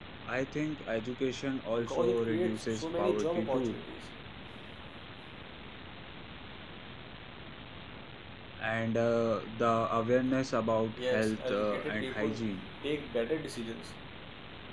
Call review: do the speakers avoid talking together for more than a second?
No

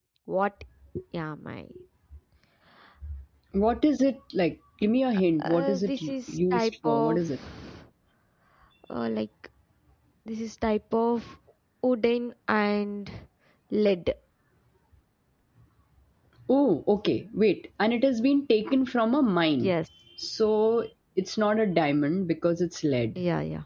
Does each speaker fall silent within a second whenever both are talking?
No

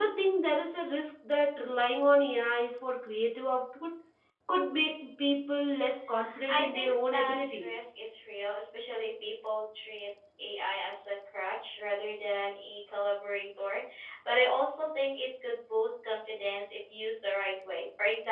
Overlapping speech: Yes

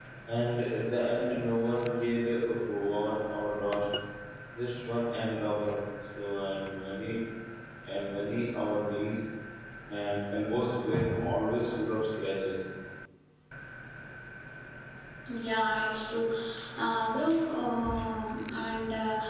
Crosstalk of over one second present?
No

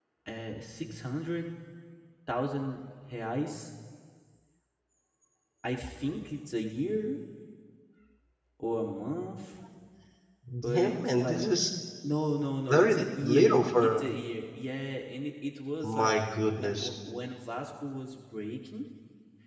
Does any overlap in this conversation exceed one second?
Yes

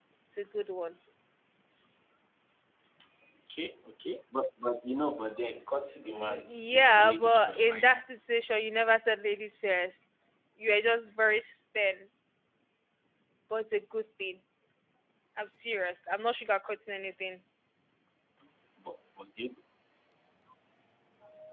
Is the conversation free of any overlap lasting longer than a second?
No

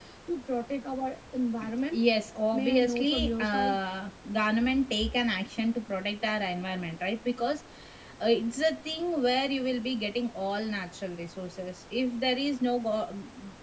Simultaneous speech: Yes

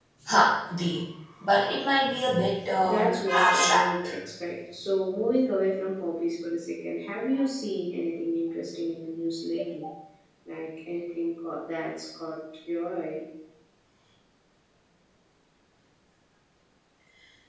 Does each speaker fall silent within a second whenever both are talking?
No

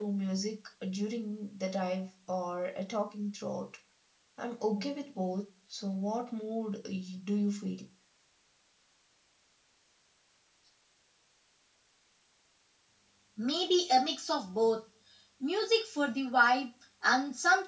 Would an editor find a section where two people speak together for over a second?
No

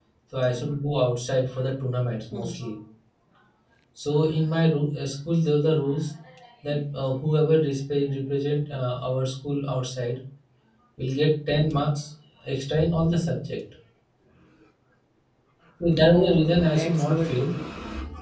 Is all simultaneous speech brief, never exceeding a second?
No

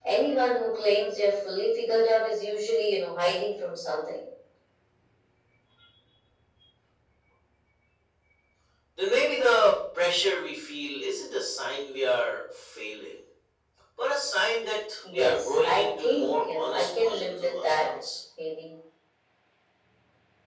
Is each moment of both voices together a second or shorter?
No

